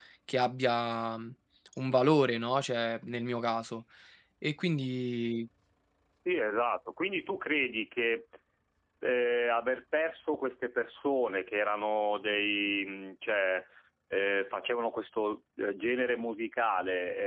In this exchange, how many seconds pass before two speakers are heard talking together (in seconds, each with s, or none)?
none